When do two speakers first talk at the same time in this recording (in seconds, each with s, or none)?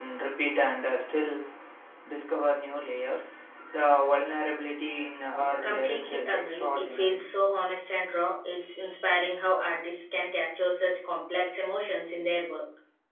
5.6 s